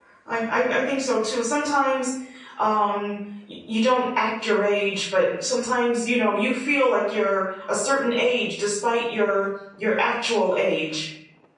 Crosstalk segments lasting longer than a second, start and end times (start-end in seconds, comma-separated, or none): none